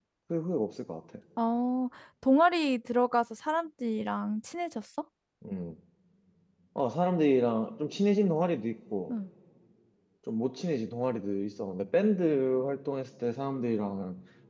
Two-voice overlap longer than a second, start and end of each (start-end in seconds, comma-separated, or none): none